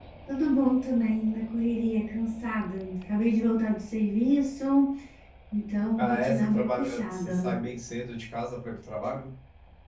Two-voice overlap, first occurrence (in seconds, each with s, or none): 6.0 s